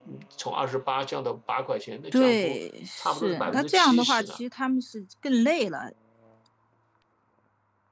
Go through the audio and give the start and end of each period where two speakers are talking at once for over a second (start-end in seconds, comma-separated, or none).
3.0-4.4